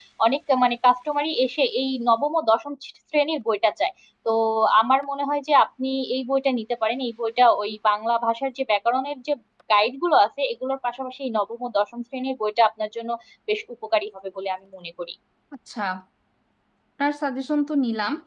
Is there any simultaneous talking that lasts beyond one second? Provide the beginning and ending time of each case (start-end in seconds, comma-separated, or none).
none